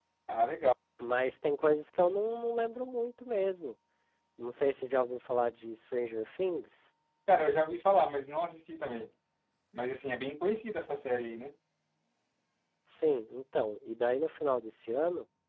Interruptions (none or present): none